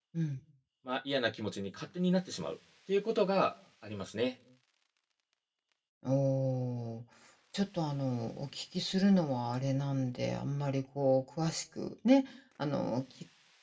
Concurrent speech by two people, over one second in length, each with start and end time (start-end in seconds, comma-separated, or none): none